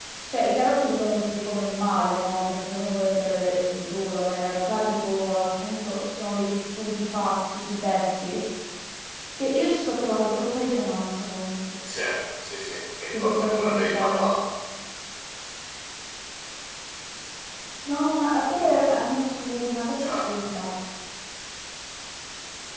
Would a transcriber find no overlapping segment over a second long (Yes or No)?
No